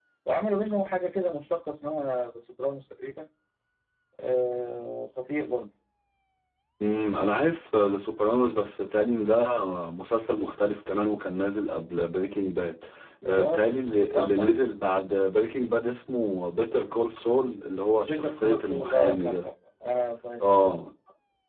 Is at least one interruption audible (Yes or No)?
Yes